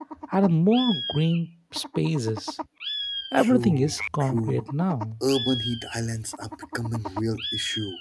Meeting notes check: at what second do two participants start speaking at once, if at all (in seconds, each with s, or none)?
3.4 s